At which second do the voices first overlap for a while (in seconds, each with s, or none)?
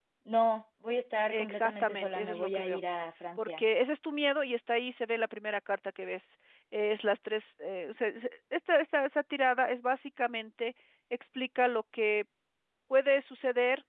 1.3 s